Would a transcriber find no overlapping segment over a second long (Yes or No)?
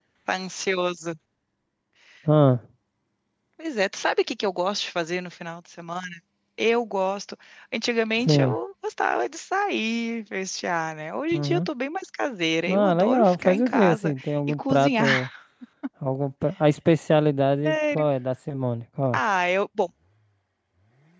No